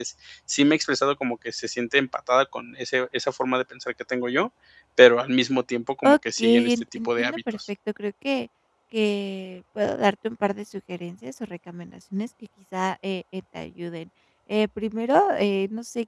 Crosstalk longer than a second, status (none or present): present